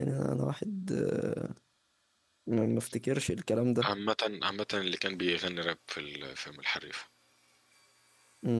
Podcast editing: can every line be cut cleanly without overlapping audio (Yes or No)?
Yes